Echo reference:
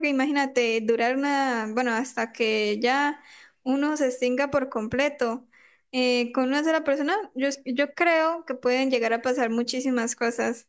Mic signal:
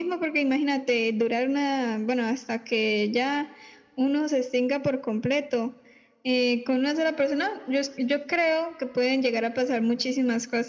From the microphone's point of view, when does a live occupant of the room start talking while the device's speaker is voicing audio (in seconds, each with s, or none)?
none